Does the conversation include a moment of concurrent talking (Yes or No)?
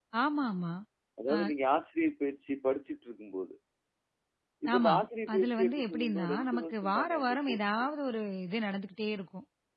Yes